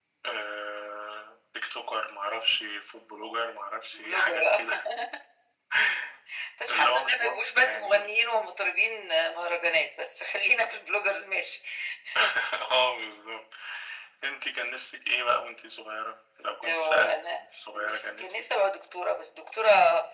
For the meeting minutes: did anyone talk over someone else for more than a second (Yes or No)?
Yes